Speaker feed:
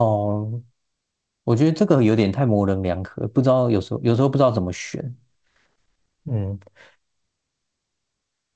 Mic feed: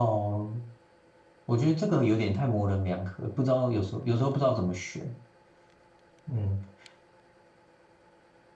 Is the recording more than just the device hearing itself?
No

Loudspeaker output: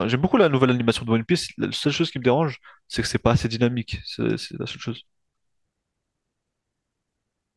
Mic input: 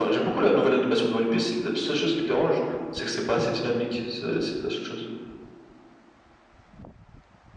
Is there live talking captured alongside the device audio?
No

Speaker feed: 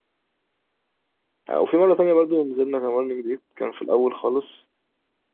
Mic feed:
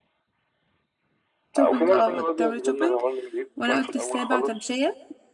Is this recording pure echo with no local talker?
No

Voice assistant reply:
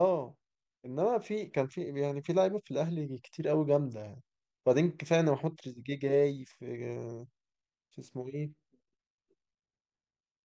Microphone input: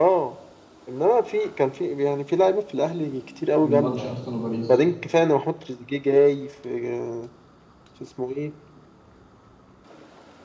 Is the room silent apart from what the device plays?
No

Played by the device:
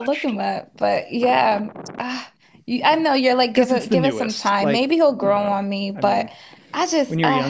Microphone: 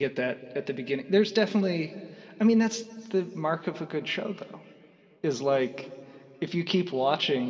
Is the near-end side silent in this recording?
No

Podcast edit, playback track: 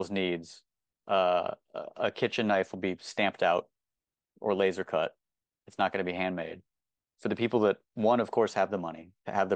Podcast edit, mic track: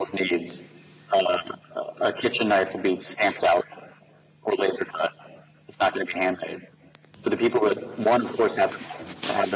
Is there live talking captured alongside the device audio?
No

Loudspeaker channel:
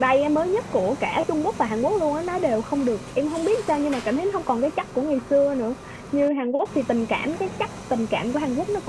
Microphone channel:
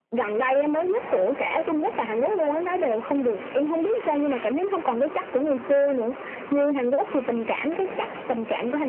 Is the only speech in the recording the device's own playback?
Yes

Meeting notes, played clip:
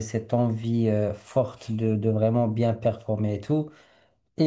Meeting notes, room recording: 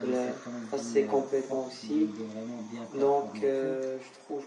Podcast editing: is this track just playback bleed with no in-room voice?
No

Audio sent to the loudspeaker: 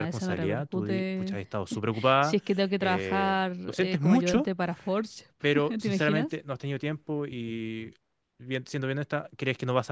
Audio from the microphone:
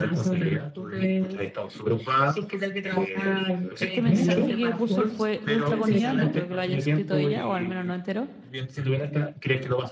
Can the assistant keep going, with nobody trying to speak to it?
No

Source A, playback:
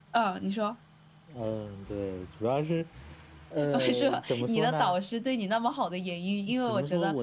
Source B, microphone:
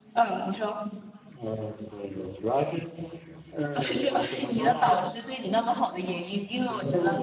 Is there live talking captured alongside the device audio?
Yes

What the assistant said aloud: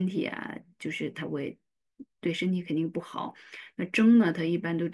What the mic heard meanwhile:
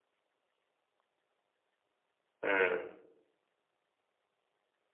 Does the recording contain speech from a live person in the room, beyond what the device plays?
Yes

